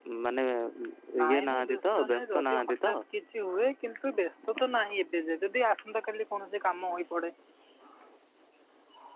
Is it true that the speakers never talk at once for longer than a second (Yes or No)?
No